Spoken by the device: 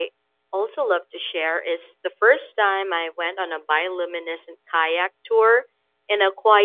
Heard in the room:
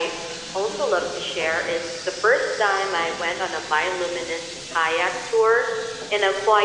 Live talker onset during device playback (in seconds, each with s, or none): none